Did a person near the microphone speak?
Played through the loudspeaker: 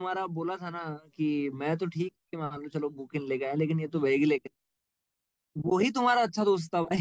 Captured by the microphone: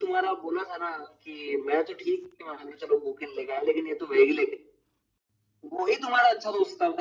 No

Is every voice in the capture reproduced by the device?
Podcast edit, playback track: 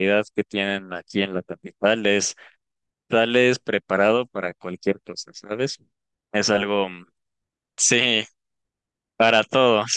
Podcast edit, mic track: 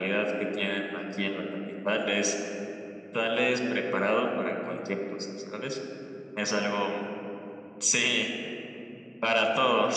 Yes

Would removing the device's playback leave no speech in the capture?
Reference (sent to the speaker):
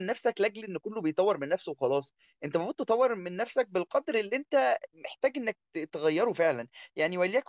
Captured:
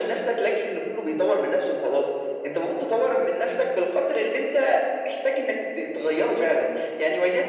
Yes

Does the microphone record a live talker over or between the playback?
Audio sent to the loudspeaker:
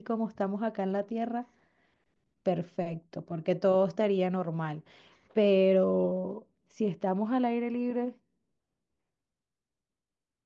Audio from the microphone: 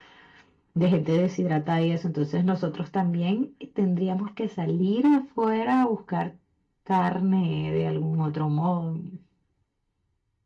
Yes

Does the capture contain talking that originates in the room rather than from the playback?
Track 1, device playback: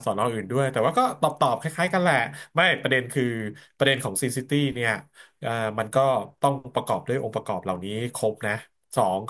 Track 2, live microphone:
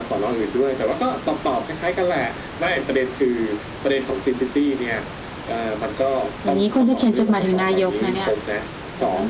Yes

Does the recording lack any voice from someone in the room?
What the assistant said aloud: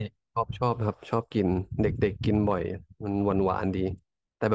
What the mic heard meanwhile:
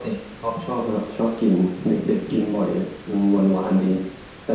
Yes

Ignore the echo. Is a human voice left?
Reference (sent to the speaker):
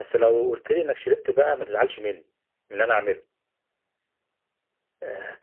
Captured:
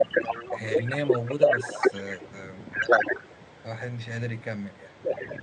Yes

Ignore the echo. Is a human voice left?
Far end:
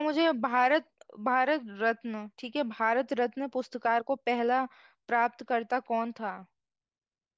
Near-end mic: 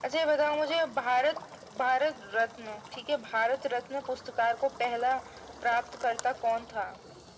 No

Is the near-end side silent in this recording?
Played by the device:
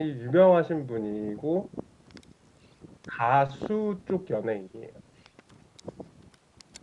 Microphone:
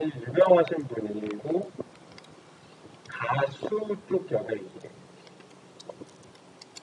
Yes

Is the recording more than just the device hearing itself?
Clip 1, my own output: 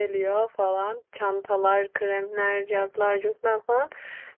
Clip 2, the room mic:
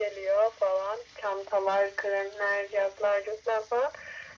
No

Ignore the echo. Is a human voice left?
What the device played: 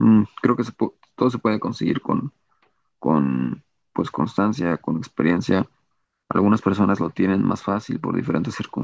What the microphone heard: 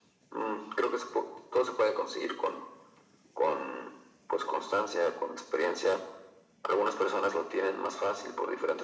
No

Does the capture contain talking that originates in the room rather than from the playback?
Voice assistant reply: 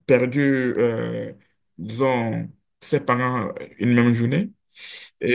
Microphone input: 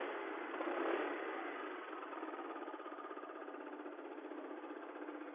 No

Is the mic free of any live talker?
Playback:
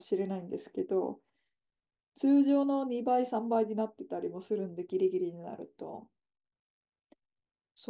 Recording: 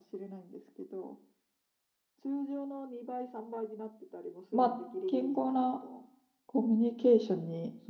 No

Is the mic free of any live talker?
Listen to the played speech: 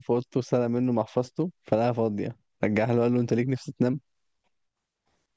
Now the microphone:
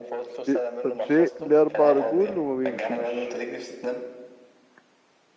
No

